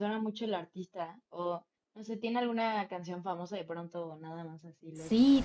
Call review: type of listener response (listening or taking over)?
taking over